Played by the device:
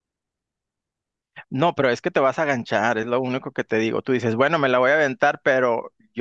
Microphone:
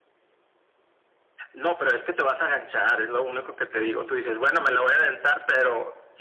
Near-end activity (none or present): none